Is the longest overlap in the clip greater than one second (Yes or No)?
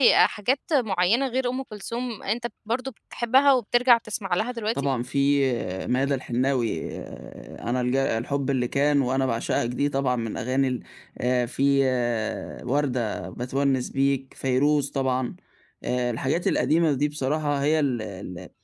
No